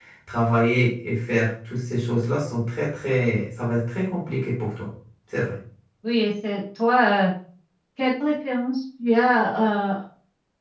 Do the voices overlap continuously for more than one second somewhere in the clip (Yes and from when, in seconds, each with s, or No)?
No